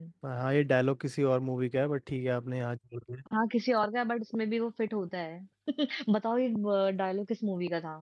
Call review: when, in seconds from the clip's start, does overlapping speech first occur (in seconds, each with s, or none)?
none